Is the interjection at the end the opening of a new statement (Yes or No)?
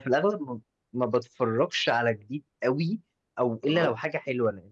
No